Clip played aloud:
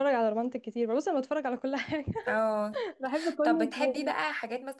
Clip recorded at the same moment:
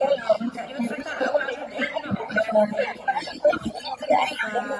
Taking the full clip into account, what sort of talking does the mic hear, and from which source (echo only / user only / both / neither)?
both